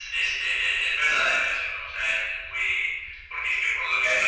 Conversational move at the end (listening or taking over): listening